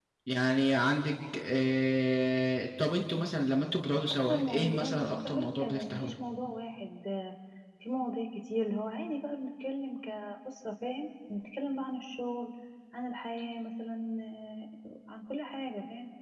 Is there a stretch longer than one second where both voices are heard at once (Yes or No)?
Yes